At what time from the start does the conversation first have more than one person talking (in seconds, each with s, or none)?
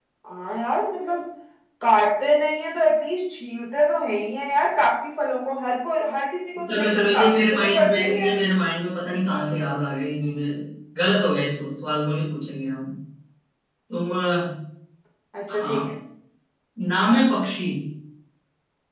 6.7 s